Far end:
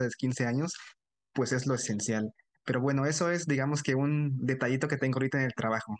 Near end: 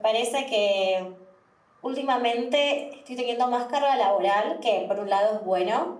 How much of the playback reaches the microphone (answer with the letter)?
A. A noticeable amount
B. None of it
B